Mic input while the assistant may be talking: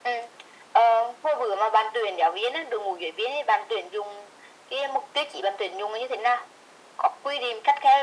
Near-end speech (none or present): none